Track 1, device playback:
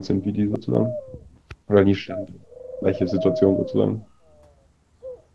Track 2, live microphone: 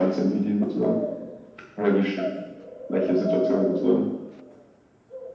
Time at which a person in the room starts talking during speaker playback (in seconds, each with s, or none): none